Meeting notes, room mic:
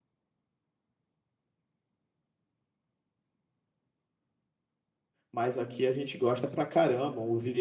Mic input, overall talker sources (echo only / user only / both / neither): user only